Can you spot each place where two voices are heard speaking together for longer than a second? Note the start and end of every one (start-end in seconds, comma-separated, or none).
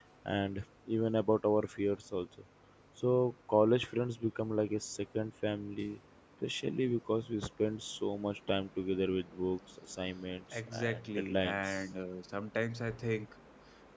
10.5-11.8